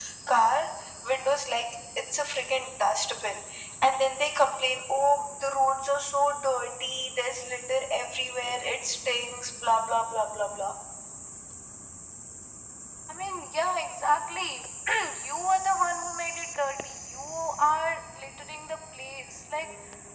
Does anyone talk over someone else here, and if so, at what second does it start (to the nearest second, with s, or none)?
none